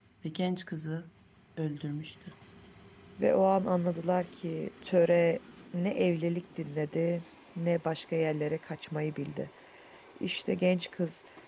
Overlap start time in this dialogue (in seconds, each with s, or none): none